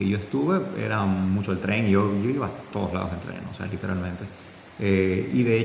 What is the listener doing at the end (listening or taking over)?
listening